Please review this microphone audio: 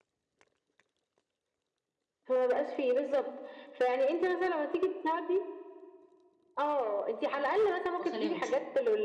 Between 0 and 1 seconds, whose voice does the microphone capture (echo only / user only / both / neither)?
neither